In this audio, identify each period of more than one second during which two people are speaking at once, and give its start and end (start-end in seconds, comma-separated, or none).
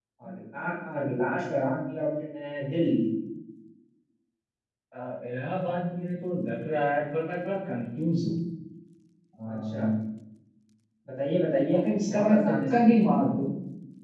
11.7-13.0